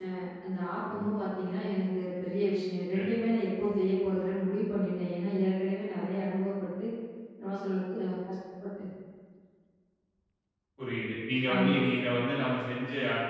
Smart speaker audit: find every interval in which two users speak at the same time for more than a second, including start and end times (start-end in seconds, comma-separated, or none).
none